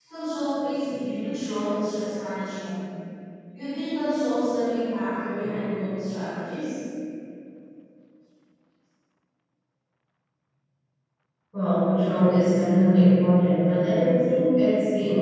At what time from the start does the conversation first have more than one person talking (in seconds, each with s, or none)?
none